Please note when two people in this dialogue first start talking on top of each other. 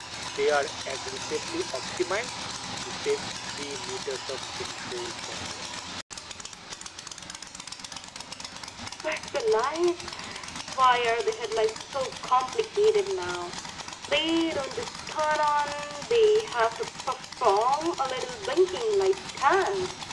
none

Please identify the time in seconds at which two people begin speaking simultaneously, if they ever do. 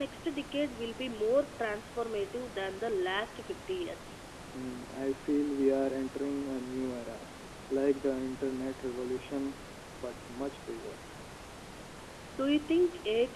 none

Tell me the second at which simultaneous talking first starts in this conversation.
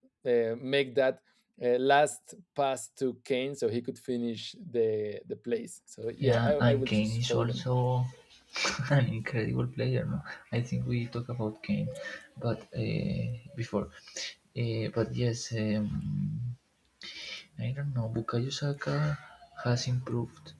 6.2 s

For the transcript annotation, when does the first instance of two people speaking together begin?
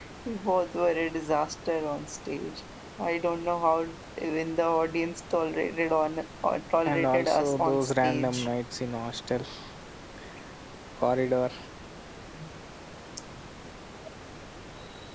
6.8 s

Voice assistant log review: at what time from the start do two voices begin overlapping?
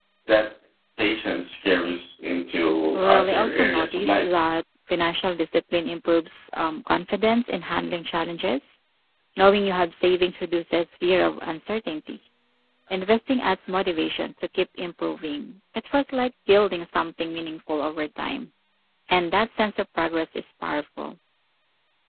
2.9 s

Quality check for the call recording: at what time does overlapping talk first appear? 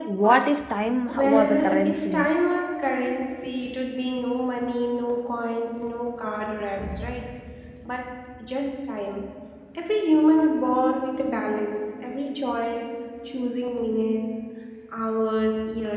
1.1 s

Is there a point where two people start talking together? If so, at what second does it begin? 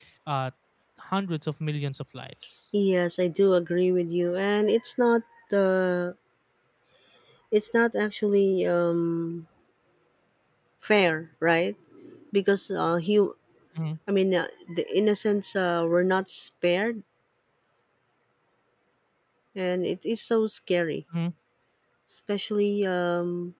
none

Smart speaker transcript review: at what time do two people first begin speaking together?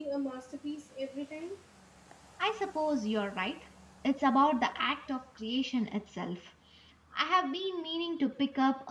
none

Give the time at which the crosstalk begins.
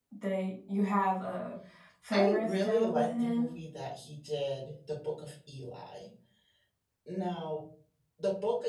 2.1 s

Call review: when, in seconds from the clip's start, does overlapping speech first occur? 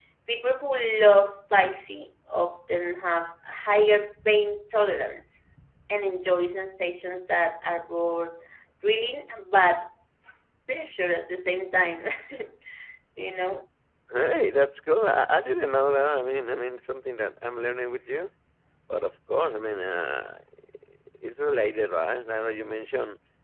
none

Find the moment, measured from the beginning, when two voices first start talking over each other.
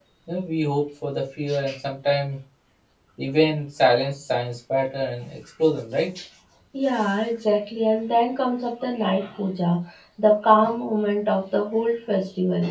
none

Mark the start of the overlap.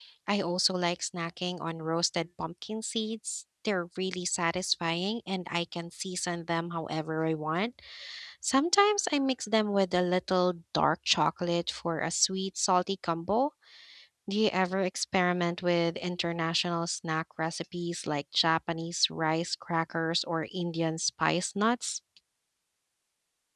none

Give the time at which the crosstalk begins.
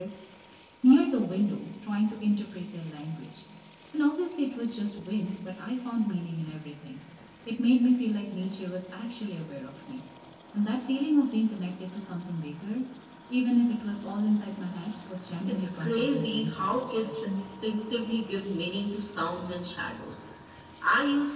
15.4 s

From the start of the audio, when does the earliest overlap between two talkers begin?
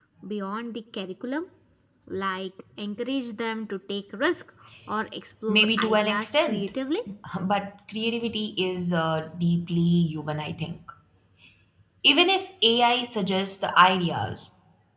5.5 s

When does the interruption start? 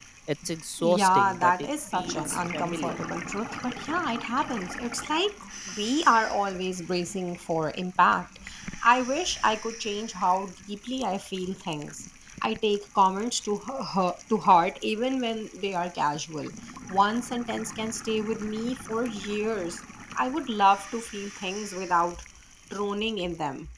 0.8 s

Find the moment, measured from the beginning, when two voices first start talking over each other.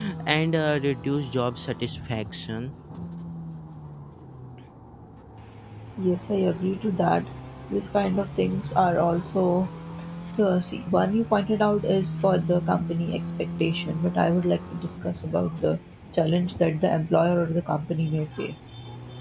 none

